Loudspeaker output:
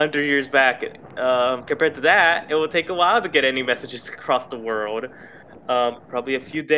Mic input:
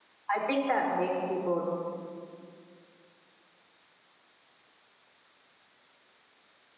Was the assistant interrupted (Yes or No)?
Yes